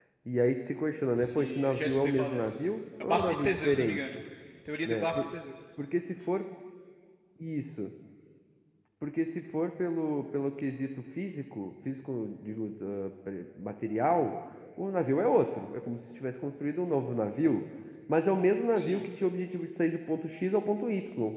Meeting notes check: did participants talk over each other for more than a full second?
Yes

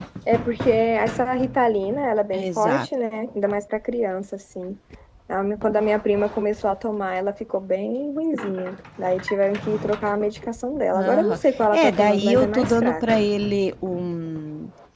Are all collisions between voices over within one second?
No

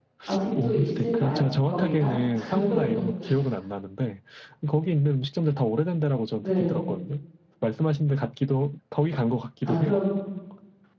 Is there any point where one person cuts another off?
Yes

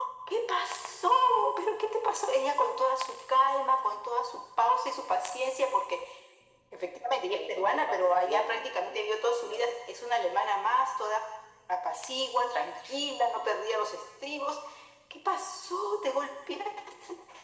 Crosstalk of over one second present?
Yes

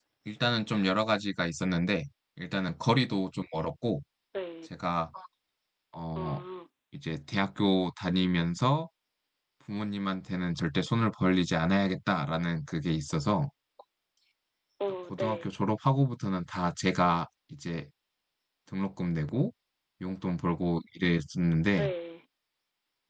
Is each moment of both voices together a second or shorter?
Yes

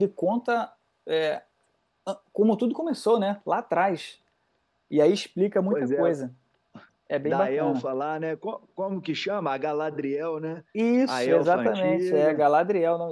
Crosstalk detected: Yes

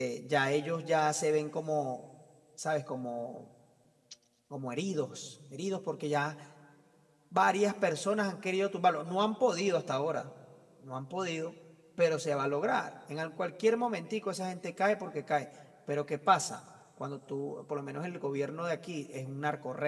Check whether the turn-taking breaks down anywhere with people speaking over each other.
No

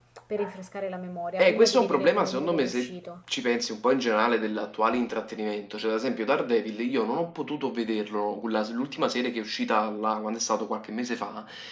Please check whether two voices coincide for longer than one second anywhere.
Yes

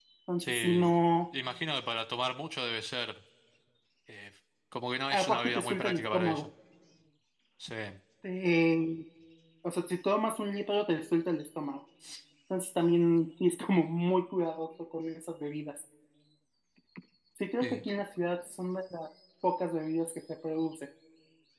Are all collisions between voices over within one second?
No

